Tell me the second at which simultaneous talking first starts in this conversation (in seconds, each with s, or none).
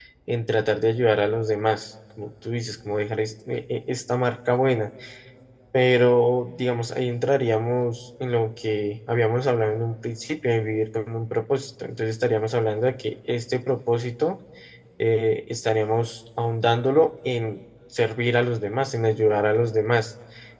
none